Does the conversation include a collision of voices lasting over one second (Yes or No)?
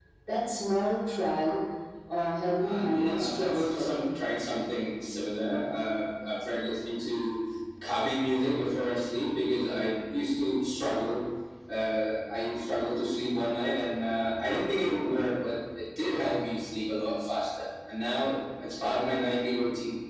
Yes